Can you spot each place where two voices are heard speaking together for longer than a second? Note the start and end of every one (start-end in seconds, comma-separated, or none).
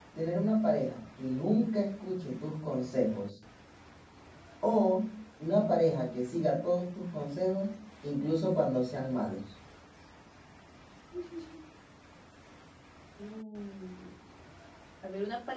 none